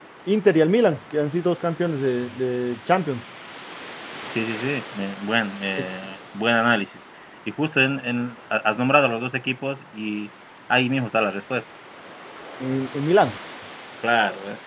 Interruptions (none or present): none